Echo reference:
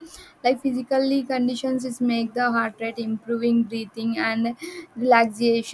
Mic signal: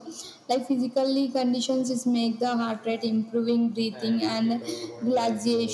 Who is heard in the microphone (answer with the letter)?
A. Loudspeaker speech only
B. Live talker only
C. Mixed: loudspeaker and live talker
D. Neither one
C